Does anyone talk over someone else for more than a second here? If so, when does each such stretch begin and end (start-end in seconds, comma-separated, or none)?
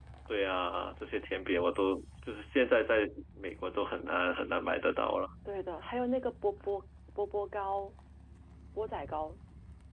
none